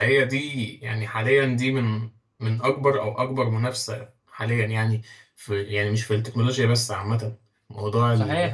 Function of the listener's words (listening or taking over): taking over